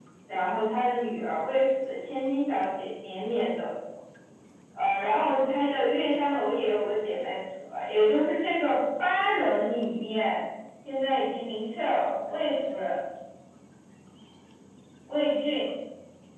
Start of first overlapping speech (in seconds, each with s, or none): none